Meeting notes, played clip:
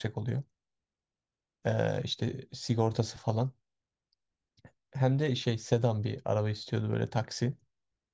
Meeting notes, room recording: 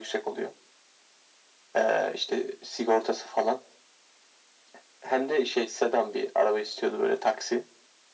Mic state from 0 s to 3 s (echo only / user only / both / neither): echo only